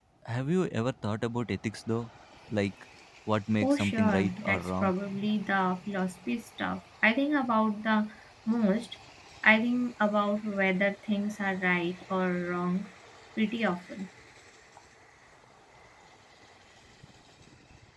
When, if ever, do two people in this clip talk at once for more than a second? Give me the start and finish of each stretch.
3.6-4.9

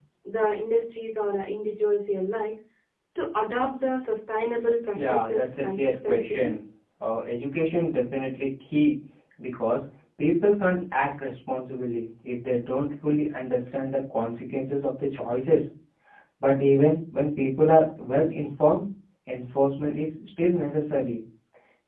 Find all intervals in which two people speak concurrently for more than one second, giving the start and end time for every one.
4.9-6.5

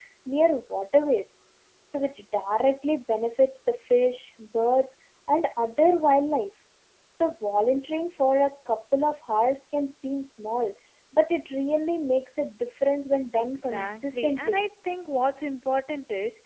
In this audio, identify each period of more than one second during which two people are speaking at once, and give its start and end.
13.4-14.6

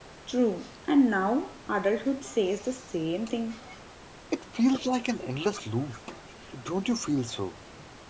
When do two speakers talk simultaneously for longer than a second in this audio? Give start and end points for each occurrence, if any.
none

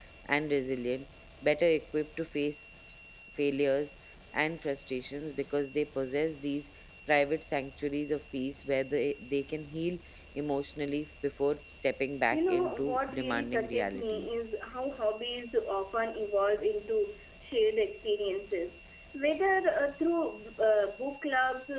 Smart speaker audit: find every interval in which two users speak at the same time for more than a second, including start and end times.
12.3-14.4

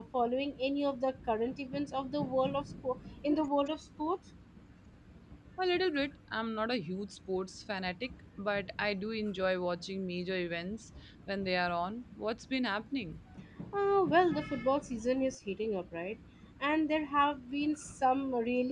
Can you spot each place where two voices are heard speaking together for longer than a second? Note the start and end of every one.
none

